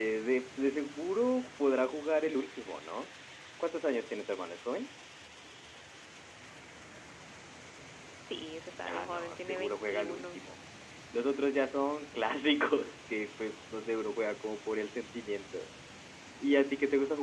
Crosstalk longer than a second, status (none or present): present